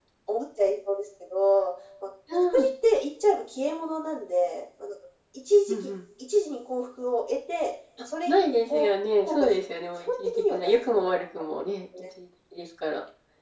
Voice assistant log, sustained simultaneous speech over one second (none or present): present